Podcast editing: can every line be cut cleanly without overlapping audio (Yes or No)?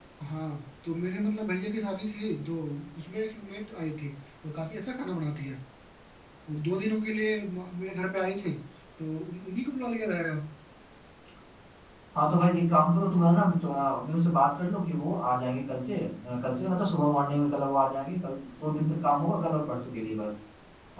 Yes